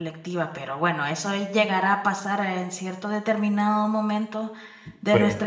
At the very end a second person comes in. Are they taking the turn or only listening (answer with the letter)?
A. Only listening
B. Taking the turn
A